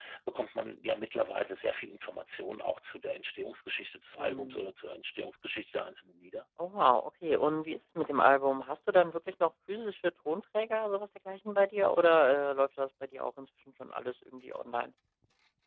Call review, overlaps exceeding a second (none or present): none